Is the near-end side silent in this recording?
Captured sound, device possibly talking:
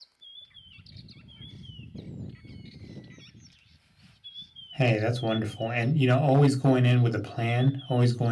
No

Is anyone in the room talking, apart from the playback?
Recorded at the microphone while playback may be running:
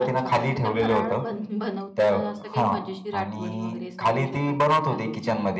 Yes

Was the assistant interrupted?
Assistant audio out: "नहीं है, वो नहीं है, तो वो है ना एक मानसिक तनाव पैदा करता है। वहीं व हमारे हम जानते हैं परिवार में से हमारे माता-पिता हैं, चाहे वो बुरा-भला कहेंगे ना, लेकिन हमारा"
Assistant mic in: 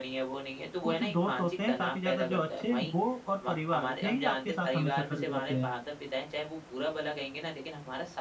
Yes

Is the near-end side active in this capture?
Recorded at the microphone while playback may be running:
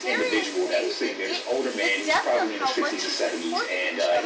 Yes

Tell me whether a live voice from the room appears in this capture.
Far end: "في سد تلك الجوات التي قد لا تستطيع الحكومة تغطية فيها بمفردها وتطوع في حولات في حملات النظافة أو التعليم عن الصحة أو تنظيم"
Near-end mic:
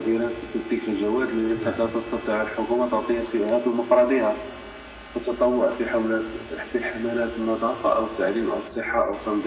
Yes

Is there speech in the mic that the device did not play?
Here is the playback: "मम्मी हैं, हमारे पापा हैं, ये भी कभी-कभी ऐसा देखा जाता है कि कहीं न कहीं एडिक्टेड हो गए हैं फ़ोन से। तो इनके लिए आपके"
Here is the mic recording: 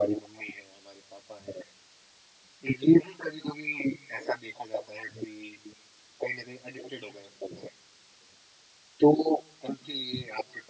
No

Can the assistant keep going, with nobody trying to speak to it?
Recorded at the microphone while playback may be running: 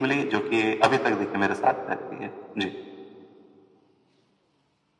Yes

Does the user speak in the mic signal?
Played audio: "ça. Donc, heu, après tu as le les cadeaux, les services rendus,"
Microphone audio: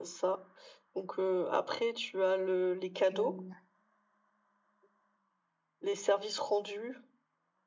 Yes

